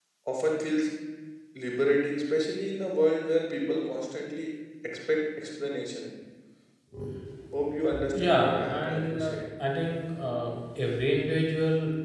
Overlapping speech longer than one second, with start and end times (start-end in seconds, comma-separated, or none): 8.2-9.4